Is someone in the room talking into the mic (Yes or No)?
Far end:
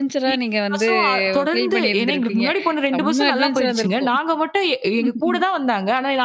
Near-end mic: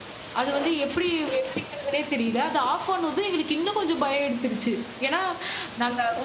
Yes